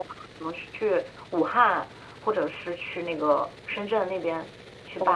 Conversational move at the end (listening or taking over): taking over